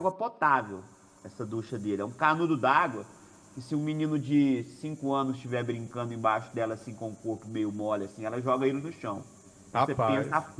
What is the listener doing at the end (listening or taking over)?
listening